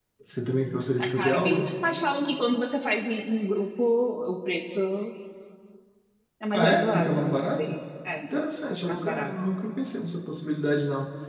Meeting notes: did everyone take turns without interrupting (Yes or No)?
No